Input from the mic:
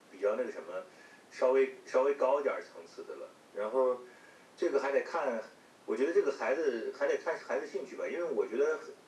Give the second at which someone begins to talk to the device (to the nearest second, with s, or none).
none